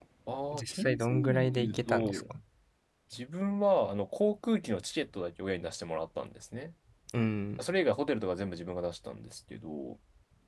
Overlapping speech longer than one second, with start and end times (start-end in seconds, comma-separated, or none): 0.5-2.2